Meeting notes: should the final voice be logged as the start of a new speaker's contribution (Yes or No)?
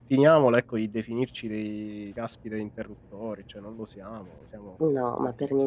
Yes